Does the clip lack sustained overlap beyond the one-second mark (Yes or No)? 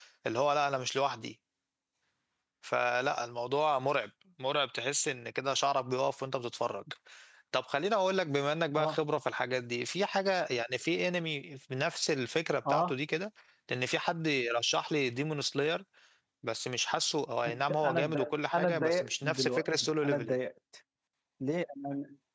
No